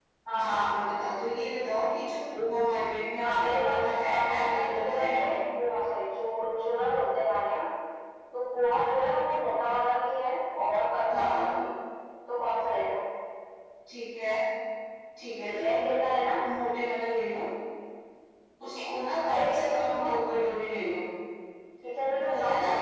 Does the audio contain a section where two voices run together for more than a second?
Yes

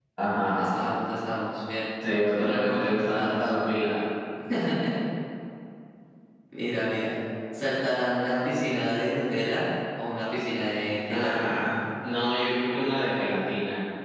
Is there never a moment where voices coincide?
No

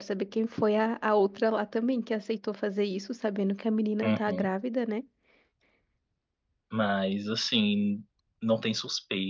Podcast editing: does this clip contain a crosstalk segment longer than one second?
No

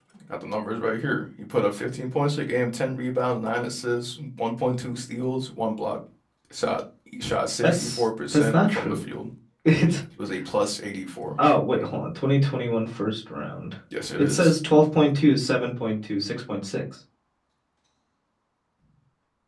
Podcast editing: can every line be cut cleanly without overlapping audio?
No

